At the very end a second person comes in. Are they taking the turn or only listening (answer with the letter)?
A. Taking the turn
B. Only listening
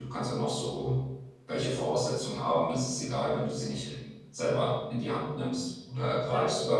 B